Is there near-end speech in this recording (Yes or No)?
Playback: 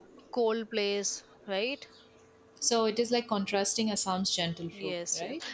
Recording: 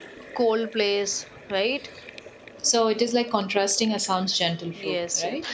No